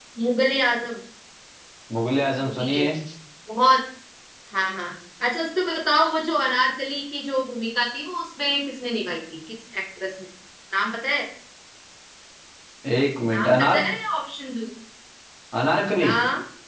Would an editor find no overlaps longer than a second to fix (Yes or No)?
Yes